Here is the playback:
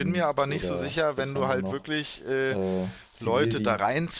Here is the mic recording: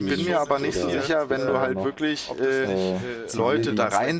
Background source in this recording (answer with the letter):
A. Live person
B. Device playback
A